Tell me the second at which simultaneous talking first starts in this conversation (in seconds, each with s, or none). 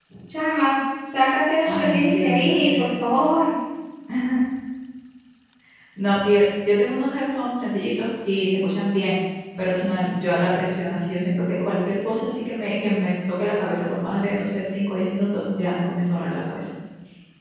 1.6 s